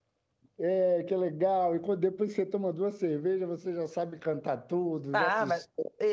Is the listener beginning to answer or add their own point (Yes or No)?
Yes